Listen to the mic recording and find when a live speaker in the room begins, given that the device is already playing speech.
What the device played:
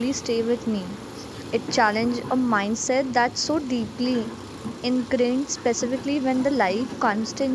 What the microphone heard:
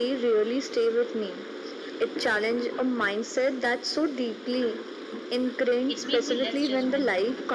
5.9 s

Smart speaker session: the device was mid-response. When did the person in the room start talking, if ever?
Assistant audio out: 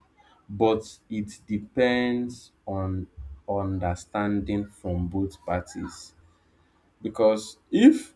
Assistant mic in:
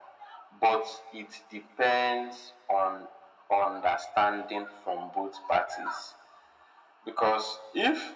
none

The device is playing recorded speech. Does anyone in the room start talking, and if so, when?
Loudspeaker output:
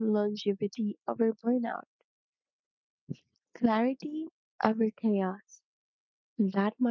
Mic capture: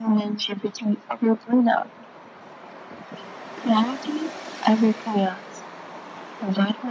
none

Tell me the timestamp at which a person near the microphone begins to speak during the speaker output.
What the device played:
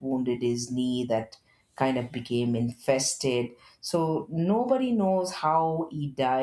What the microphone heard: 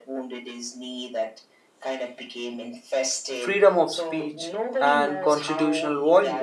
3.4 s

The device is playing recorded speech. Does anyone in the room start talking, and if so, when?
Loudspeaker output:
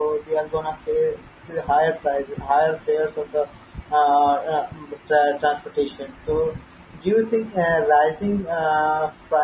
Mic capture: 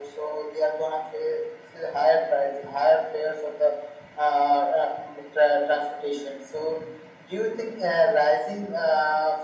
none

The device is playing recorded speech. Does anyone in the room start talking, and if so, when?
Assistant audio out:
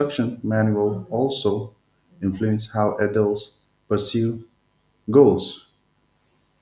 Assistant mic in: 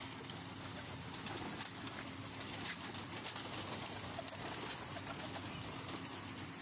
none

